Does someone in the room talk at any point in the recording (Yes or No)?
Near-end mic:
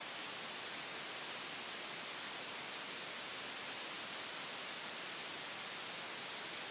No